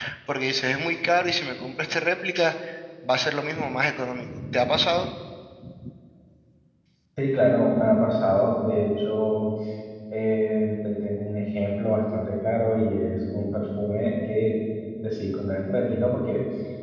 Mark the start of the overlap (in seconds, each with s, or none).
none